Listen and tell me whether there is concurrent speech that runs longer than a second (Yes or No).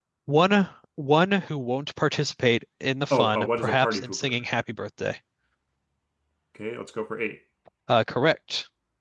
Yes